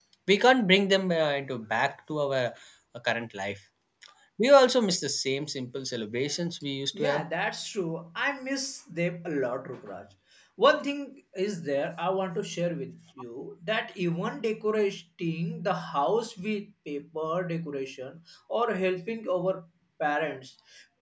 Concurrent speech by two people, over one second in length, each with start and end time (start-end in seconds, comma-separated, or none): none